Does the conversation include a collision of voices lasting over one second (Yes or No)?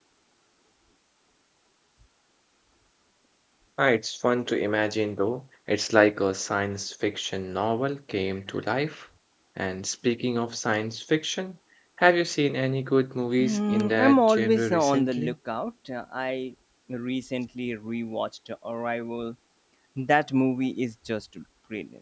Yes